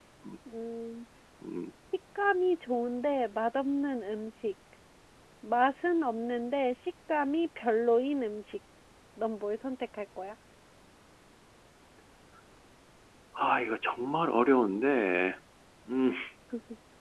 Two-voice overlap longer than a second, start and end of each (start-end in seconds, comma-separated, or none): none